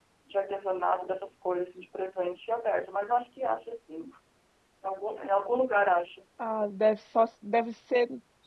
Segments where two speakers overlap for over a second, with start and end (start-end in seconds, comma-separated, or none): none